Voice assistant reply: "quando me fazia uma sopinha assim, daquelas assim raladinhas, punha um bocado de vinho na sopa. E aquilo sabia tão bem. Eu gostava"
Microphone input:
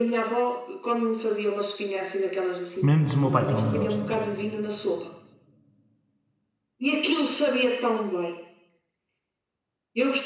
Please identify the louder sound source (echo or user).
user